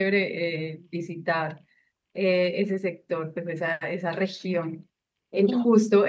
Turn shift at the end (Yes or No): No